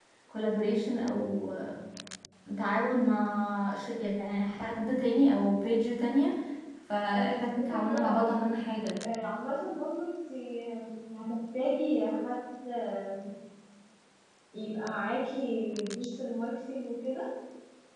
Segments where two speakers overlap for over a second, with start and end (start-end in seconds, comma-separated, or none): 7.1-8.4